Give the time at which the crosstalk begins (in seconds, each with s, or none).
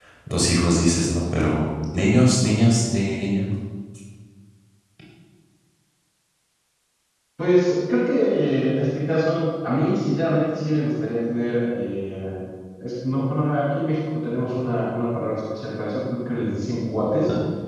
none